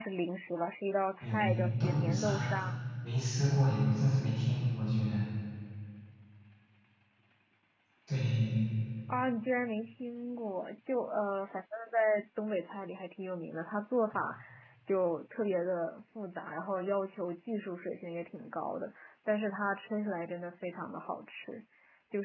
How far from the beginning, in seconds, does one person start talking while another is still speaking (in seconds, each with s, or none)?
1.2 s